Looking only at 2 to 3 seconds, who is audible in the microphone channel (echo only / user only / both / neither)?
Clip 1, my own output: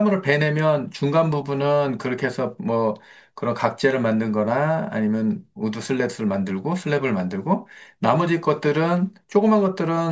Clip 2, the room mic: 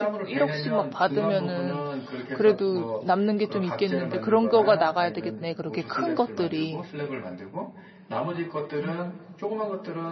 both